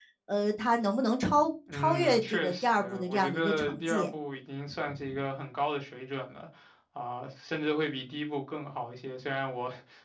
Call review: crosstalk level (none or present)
present